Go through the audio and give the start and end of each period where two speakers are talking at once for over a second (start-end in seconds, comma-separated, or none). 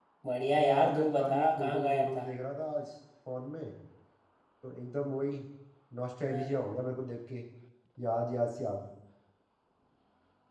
0.6-2.2